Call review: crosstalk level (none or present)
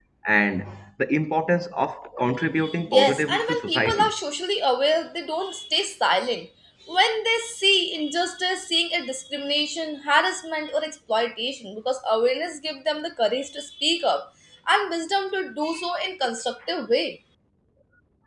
present